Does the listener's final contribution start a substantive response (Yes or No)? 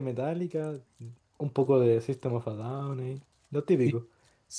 Yes